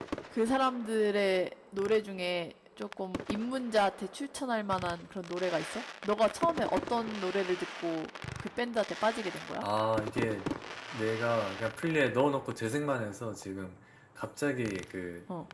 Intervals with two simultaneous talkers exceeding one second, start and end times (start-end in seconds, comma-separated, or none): none